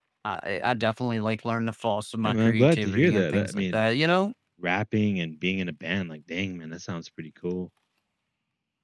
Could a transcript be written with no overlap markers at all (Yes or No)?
No